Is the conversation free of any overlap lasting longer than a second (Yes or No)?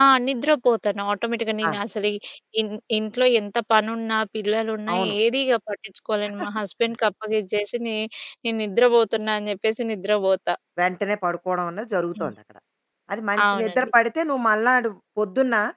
Yes